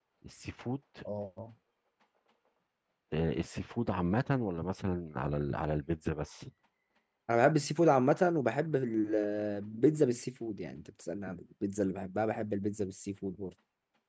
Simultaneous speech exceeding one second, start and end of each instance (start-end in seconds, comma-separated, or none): none